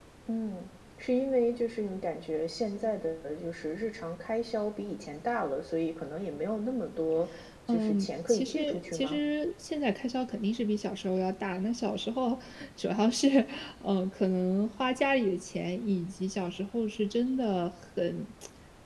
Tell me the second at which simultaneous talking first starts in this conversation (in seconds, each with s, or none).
7.7 s